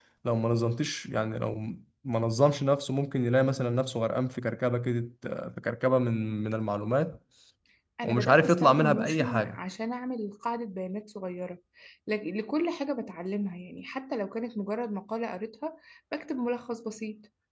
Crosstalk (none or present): present